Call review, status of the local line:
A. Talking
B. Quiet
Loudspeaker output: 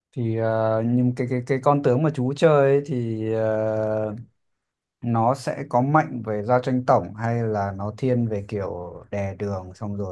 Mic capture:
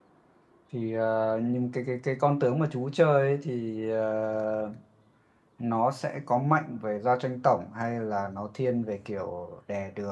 B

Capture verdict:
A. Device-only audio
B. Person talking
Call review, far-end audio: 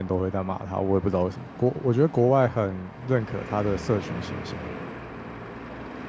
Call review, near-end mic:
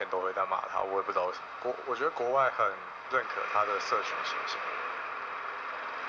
A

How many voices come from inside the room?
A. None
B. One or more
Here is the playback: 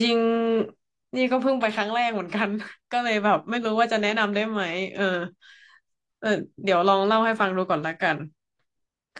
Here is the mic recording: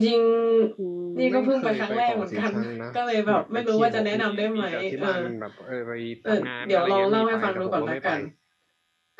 B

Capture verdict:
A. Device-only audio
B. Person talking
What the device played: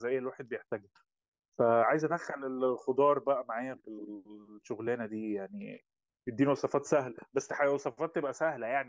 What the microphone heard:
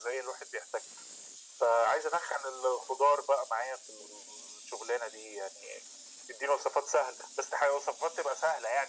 A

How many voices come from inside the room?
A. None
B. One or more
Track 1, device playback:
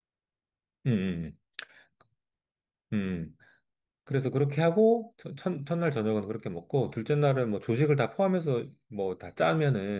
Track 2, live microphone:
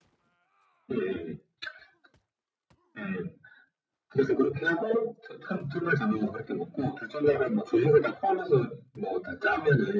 A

